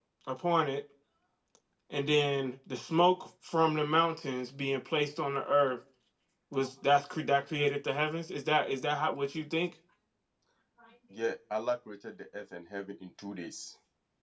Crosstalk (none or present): none